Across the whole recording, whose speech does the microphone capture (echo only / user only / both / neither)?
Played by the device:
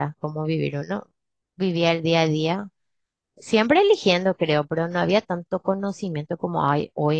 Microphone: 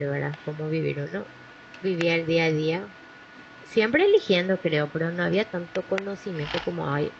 echo only